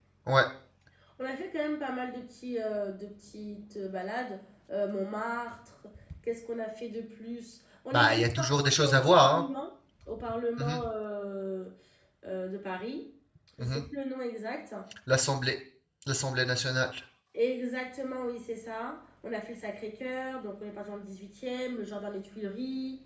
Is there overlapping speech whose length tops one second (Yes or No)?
Yes